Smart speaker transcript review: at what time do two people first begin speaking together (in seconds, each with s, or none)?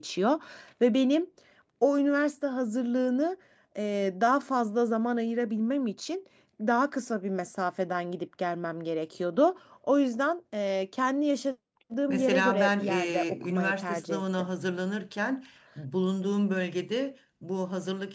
12.1 s